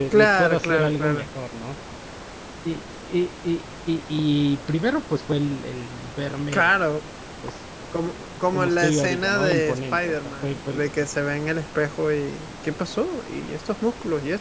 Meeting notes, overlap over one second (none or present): present